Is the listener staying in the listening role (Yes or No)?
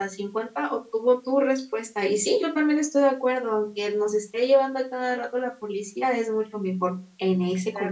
No